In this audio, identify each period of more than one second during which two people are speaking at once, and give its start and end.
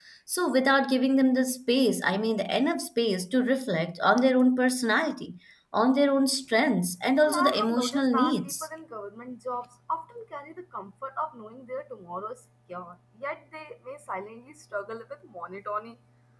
7.2-8.7

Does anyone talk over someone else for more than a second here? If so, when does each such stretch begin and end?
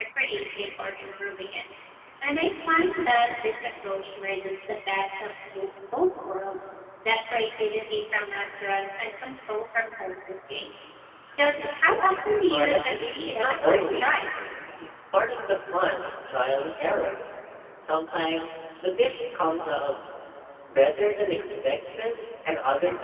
12.5-14.2

